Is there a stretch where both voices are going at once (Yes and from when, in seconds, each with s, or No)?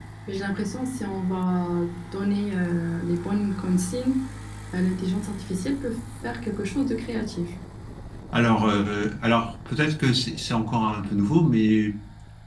No